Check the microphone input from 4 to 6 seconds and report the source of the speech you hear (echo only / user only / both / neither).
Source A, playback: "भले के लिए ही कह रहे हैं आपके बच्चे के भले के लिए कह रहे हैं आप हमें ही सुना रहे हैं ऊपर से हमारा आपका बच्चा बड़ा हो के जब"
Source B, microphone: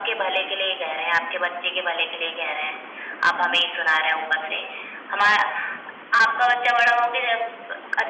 echo only